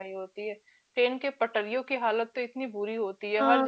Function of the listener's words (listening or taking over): listening